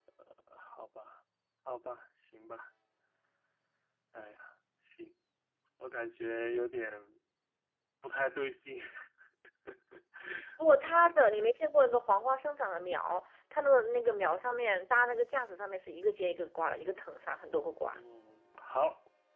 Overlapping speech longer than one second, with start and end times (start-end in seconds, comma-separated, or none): none